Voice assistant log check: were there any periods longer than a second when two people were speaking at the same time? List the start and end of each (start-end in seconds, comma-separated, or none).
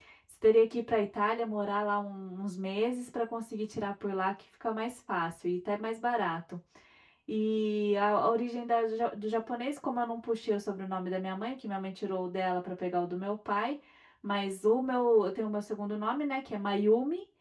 none